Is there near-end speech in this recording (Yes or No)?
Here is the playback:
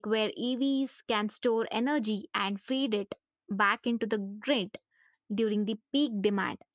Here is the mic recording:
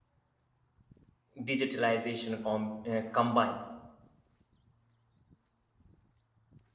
Yes